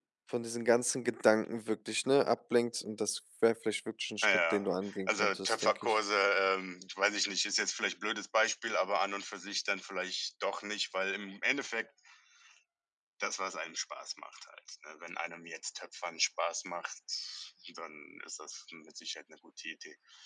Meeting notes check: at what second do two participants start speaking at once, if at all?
4.2 s

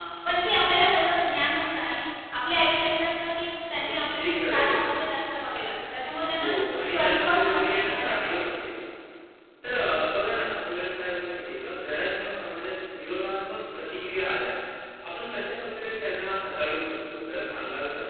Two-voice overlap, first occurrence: 3.8 s

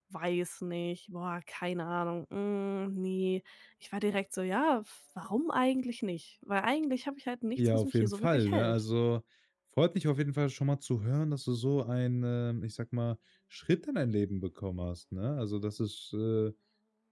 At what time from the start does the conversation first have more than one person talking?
7.6 s

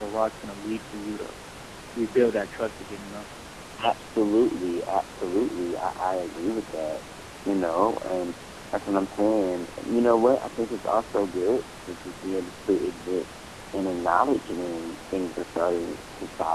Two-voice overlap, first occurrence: none

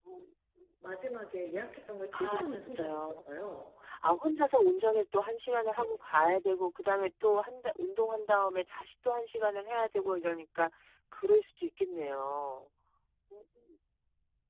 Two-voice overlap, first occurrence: 2.1 s

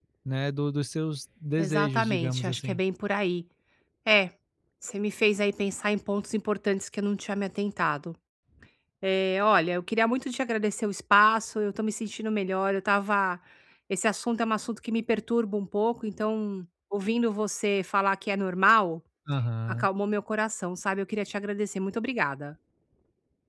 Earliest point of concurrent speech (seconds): 1.6 s

